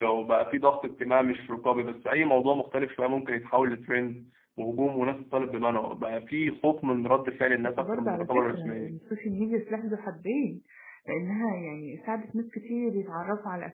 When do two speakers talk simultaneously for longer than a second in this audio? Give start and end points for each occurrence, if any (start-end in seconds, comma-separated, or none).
7.6-9.0